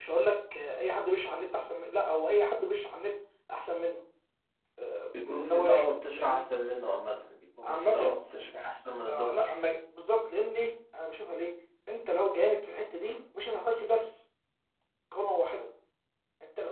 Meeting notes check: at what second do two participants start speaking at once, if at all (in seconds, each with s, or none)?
5.2 s